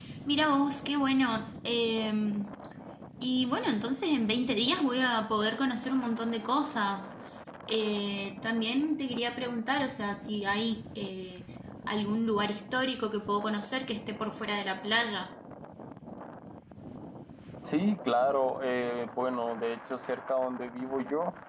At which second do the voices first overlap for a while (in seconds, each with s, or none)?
none